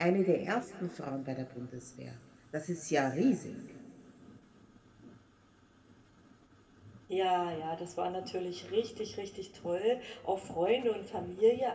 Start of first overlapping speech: none

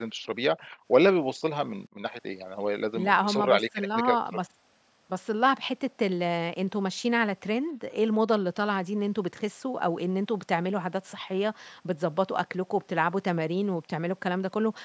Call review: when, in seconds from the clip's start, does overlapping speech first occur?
3.0 s

